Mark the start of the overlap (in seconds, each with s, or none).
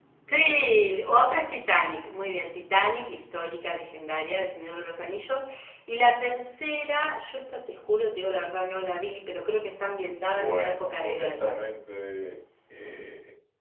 10.3 s